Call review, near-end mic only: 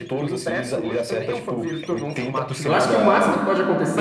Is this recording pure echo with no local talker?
No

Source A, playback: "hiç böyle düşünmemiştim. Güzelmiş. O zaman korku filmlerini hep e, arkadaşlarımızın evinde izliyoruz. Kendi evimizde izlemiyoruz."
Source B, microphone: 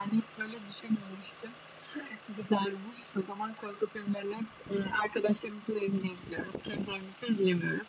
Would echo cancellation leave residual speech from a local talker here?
No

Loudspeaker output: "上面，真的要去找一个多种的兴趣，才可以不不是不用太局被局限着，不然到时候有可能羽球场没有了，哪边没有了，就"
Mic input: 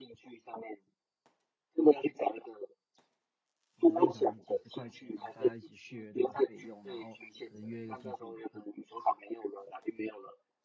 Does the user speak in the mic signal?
Yes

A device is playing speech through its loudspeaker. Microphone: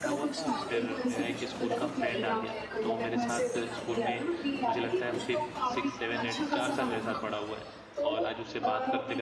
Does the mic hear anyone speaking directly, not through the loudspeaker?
Yes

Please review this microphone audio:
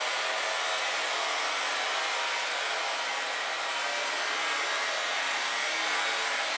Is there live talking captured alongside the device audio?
No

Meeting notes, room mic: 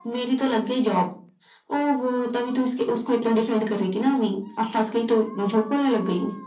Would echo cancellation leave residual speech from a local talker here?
No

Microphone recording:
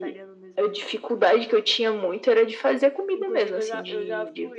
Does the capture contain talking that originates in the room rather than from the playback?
Yes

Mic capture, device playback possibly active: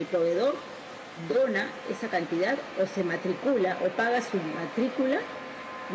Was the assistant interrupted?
Yes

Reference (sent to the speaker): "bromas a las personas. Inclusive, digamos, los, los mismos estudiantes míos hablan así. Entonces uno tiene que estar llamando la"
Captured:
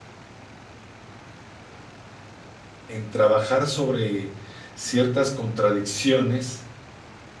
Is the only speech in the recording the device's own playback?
No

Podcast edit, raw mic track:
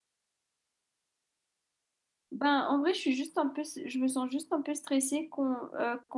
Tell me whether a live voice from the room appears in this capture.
Yes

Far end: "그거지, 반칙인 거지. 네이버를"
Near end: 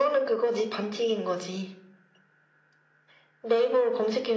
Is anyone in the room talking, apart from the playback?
No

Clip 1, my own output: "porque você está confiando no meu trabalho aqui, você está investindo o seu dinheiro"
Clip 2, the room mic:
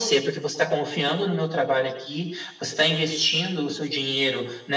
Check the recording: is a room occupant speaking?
No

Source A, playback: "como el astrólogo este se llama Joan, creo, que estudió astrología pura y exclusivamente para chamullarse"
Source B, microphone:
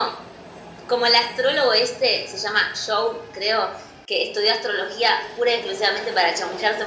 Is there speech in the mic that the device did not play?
No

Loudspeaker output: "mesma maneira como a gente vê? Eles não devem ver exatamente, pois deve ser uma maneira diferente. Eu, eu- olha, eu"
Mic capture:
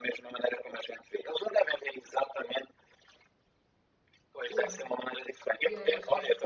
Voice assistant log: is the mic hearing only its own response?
No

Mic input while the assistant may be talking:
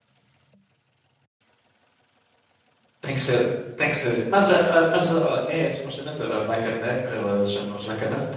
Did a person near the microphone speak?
Yes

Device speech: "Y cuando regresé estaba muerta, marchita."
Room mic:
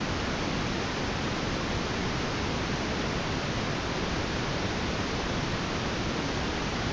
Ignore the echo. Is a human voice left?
No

